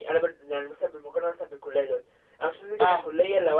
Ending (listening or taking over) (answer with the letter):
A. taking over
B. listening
B